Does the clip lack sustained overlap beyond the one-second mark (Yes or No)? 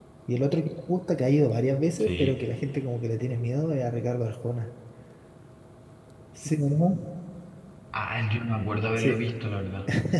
Yes